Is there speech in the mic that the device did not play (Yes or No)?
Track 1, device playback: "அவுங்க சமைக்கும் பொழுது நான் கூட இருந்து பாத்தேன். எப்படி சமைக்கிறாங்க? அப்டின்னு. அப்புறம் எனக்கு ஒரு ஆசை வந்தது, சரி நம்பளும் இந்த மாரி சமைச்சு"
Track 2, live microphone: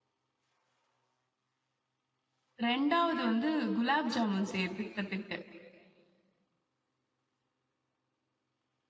Yes